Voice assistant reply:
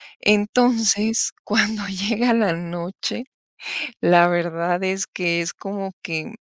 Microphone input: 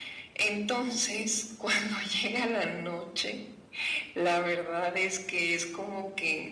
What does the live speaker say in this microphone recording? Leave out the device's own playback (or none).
none